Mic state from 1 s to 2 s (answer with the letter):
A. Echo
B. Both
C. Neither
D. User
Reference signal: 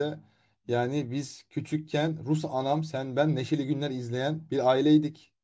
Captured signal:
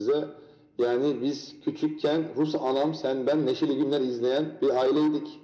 A